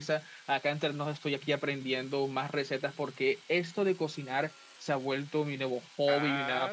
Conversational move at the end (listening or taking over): taking over